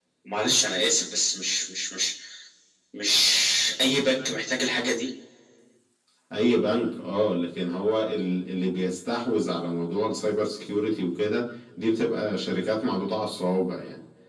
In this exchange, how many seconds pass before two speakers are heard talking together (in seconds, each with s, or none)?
none